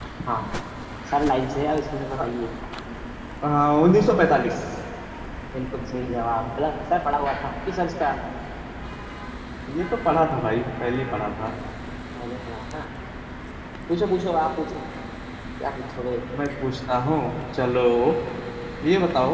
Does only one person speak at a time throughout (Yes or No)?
Yes